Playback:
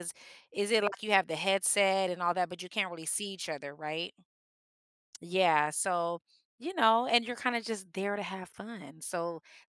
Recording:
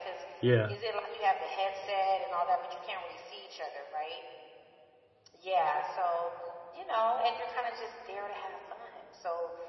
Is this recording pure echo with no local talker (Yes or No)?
No